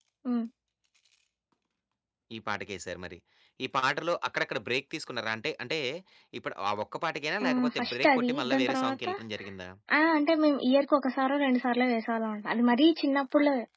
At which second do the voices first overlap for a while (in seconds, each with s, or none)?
7.4 s